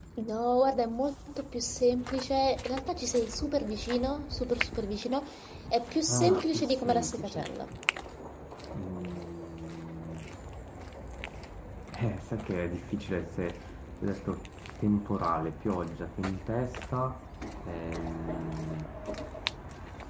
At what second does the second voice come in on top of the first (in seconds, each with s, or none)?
6.1 s